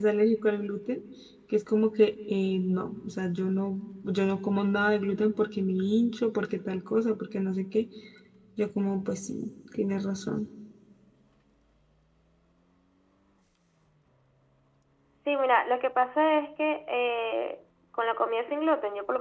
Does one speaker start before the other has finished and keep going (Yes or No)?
No